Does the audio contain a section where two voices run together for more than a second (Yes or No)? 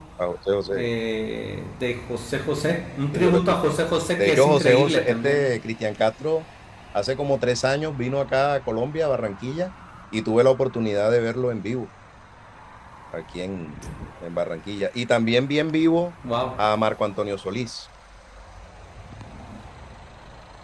Yes